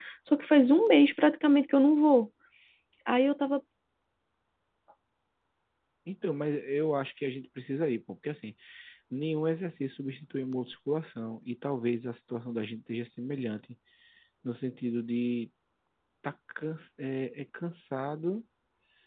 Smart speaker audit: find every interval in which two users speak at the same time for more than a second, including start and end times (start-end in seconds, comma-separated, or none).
none